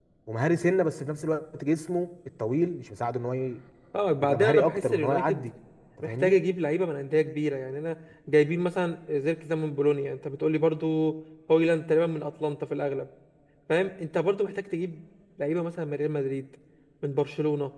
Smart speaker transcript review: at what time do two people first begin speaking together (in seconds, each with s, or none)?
4.2 s